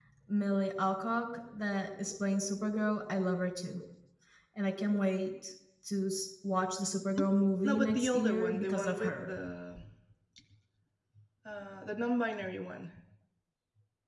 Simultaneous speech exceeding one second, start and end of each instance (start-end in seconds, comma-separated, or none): 7.6-9.3